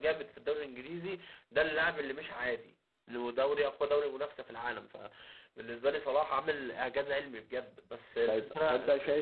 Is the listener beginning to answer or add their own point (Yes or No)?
Yes